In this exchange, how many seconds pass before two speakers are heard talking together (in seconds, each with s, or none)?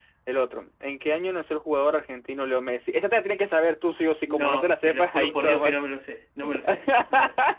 4.3 s